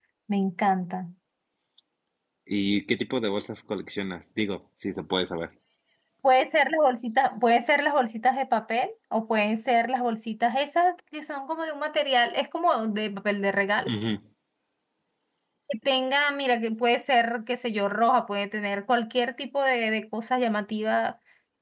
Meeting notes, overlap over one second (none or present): none